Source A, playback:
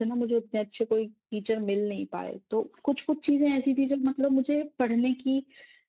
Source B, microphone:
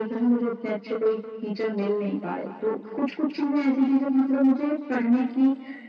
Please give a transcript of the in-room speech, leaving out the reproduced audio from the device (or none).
none